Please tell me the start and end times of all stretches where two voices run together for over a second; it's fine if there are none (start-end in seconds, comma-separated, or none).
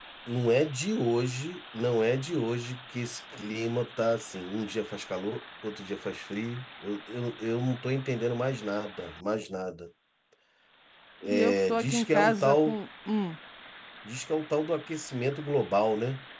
11.2-12.8